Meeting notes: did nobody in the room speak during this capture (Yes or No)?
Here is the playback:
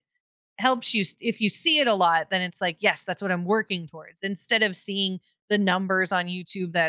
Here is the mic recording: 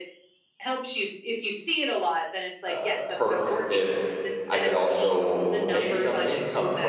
No